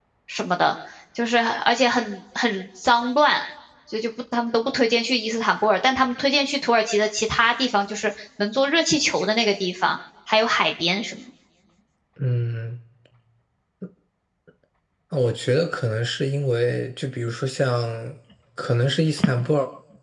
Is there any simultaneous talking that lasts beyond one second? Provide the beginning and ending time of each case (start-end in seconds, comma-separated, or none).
none